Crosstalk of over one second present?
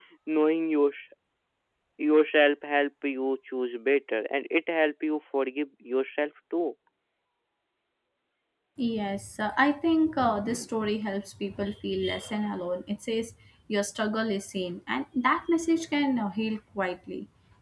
No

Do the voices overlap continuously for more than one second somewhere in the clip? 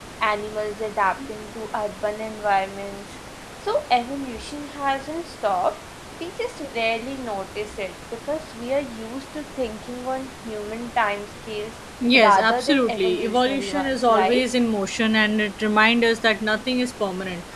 Yes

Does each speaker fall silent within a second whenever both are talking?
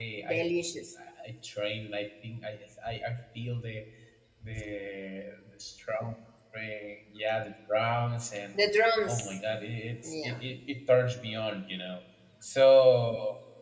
Yes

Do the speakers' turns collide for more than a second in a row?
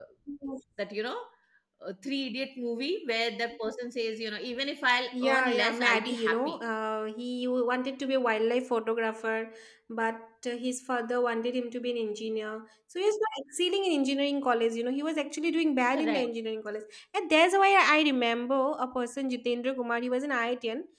Yes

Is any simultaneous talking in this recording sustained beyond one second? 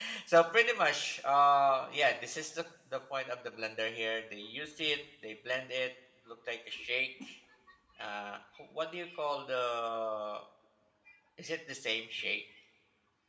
No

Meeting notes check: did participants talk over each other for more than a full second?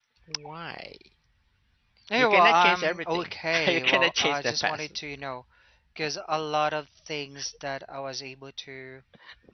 Yes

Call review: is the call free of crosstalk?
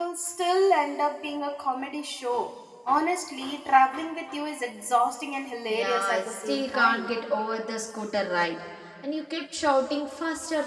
No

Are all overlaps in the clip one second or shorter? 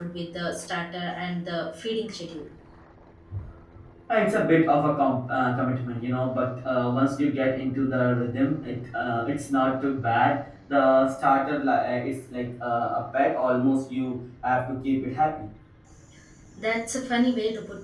Yes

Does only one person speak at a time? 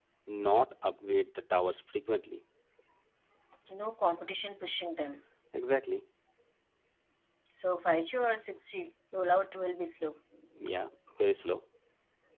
Yes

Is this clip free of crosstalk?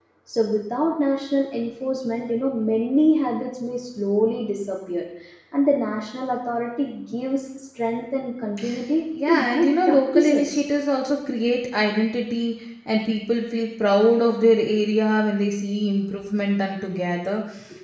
No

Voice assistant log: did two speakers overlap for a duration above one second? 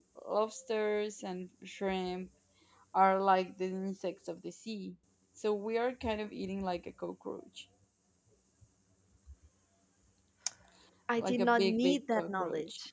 Yes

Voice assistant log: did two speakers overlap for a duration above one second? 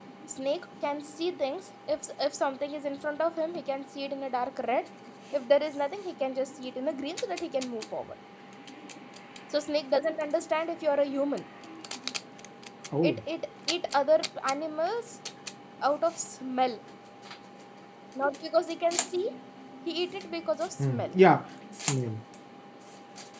No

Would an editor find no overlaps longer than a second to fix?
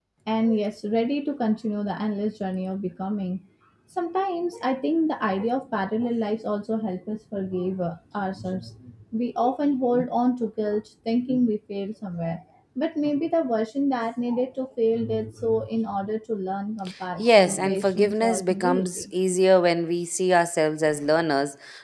No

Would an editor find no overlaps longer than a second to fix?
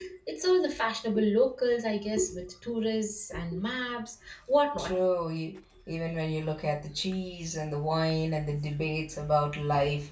Yes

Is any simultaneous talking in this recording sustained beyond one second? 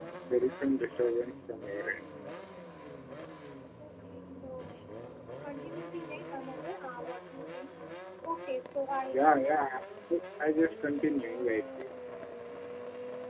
No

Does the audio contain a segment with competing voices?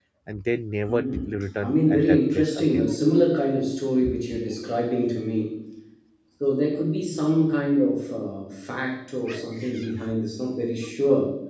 Yes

